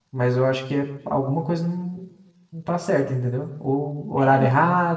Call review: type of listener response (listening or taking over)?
listening